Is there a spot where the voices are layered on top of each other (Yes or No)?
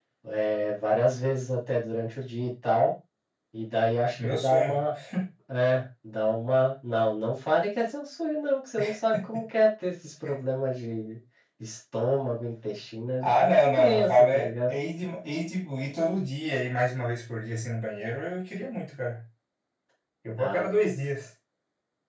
Yes